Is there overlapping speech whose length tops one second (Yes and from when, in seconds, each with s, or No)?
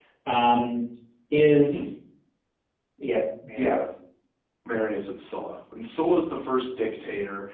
No